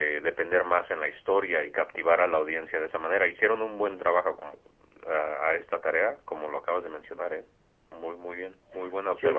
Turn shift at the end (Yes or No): Yes